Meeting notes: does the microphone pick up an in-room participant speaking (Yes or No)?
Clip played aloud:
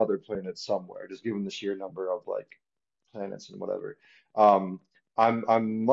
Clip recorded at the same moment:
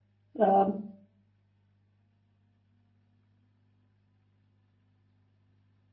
Yes